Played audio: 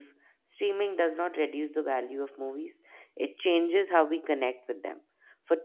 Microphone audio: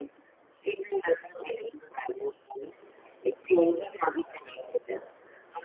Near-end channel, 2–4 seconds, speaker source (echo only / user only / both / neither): echo only